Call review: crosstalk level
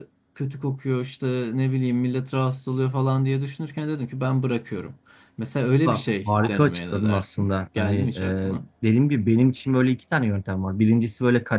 present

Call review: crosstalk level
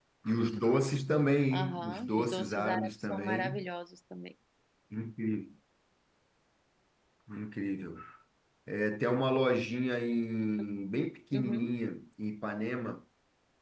present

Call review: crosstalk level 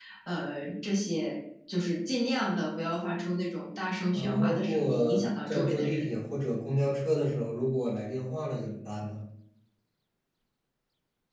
present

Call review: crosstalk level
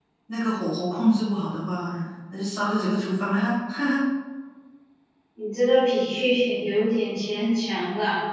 none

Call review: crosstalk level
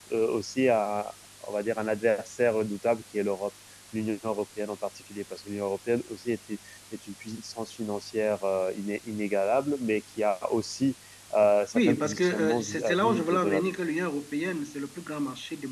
present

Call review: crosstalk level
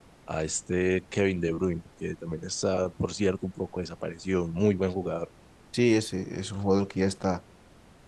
none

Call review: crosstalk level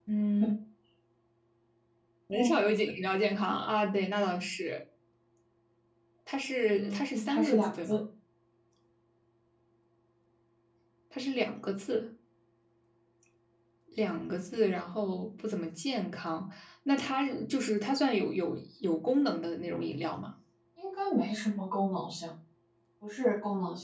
present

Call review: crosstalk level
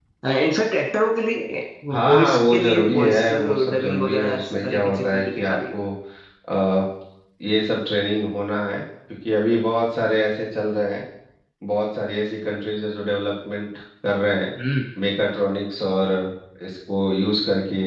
present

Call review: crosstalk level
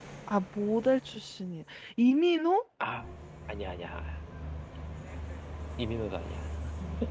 none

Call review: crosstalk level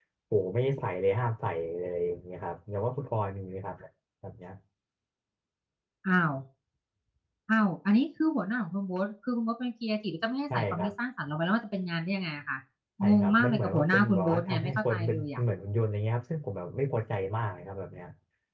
present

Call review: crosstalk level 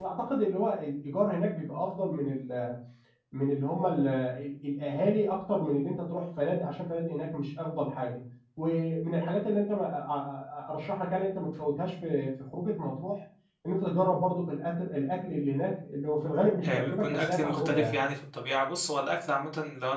present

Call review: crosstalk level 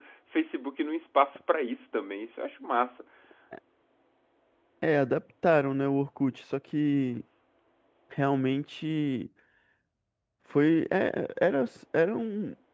none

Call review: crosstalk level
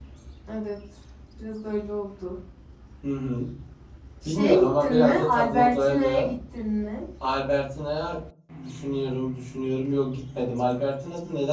present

